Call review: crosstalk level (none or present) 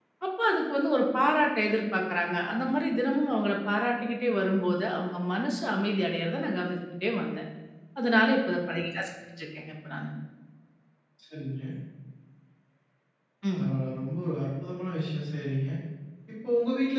none